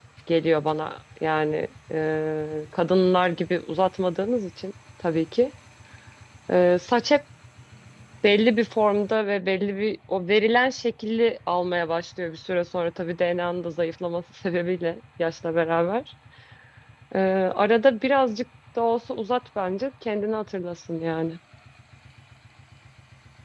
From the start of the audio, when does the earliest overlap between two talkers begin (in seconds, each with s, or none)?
none